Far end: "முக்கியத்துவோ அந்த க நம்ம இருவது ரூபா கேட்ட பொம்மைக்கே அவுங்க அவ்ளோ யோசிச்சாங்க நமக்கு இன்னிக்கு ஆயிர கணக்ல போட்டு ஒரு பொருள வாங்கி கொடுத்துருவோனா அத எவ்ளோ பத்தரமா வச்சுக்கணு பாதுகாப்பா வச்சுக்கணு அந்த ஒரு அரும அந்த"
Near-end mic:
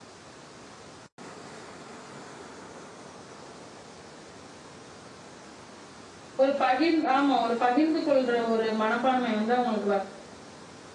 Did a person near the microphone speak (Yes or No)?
Yes